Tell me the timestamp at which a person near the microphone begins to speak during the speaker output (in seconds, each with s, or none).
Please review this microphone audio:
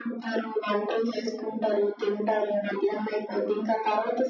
none